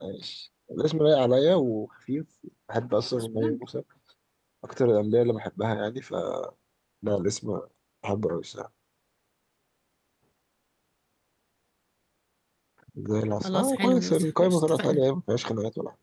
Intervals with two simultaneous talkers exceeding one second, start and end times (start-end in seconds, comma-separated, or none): 13.4-15.0